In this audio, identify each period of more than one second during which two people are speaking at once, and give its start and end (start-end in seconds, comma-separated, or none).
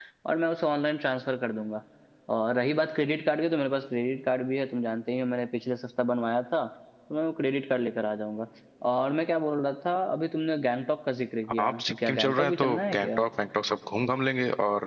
11.6-13.2